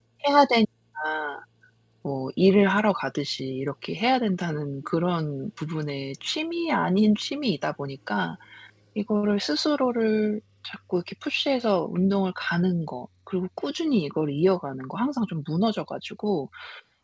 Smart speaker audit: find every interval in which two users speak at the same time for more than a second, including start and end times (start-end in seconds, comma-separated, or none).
none